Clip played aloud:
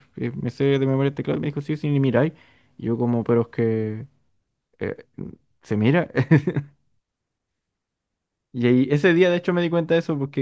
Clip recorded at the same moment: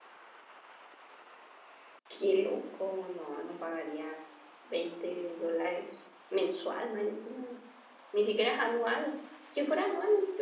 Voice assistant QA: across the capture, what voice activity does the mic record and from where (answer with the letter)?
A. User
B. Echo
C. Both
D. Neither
A